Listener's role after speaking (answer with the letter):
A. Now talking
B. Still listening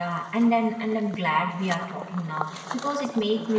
B